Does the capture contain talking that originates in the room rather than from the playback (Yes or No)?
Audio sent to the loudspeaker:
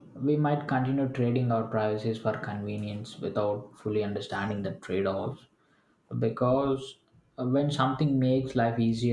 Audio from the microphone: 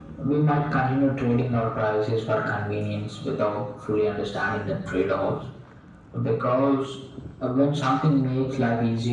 No